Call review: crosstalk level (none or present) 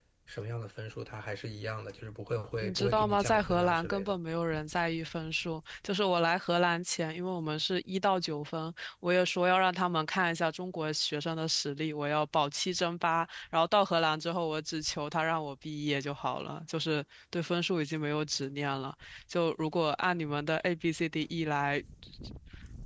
present